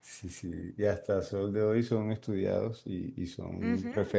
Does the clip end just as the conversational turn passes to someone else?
No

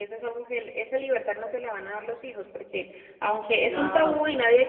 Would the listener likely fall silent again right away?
Yes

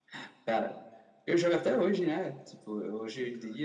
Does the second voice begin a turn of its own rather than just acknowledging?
No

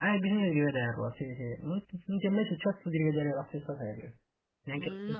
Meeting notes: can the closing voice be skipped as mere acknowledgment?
No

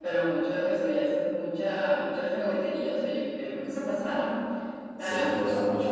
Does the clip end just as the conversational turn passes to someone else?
Yes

